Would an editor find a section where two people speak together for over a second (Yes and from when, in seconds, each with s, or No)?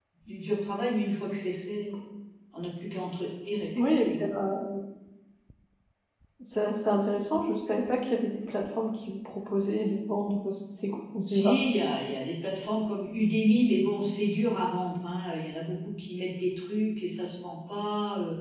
No